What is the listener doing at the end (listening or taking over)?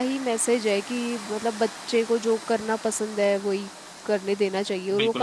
taking over